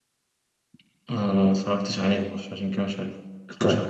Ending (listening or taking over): taking over